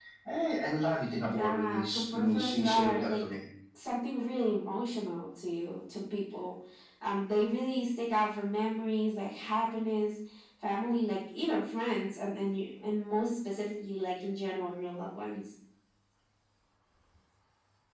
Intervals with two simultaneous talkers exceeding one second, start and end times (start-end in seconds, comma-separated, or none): 1.3-3.2